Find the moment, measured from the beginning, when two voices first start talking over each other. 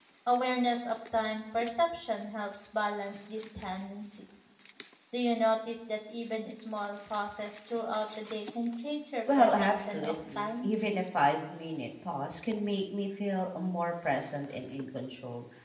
9.3 s

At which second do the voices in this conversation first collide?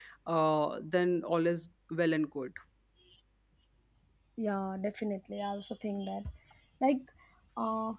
none

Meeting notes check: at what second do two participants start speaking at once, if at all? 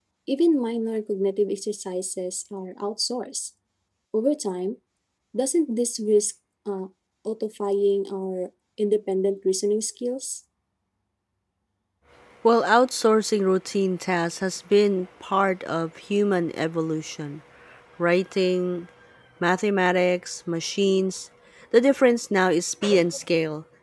none

